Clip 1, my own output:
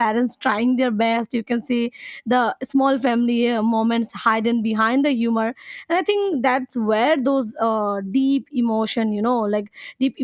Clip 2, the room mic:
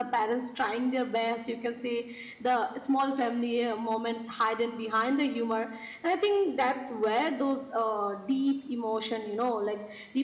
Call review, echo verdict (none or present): present